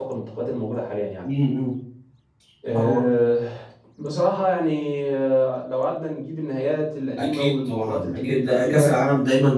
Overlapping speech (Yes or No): Yes